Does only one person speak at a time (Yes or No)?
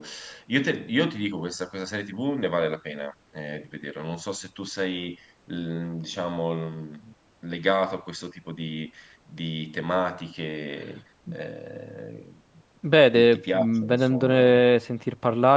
No